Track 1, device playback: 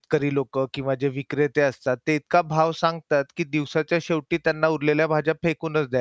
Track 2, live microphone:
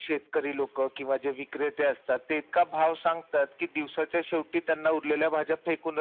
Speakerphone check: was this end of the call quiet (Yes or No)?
Yes